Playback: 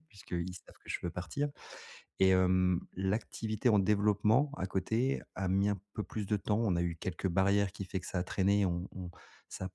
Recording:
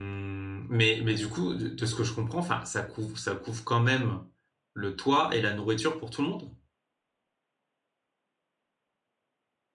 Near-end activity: present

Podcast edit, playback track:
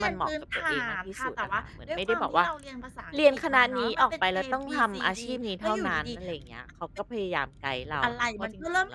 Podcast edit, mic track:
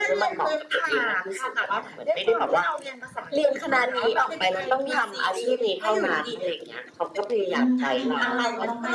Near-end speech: present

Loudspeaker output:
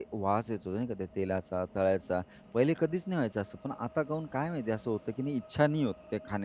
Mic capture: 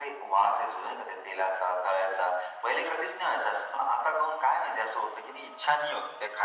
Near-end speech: none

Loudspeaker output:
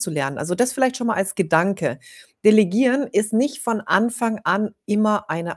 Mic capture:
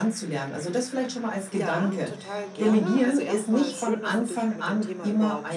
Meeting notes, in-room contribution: present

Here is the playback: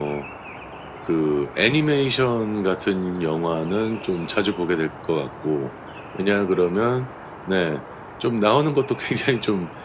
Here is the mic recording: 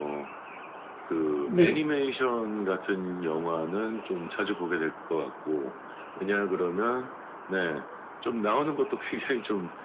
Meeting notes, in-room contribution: present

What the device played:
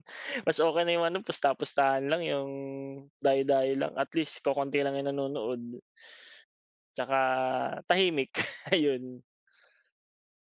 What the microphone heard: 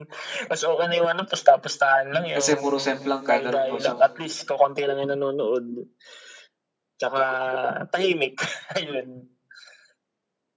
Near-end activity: present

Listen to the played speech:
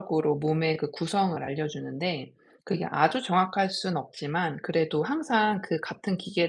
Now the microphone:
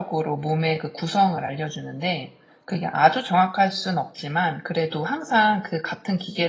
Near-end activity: none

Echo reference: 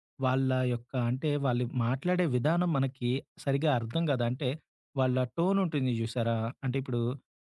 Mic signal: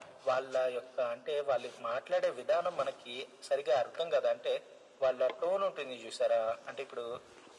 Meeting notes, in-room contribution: none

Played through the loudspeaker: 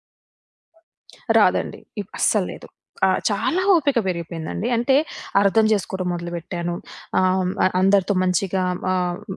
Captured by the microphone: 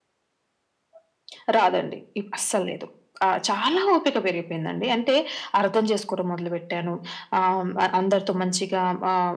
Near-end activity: none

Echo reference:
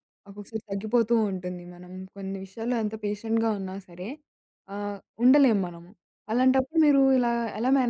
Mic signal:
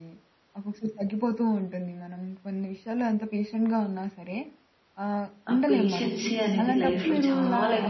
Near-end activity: present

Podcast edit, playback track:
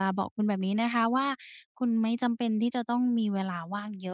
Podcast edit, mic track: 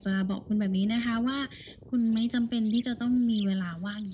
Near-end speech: none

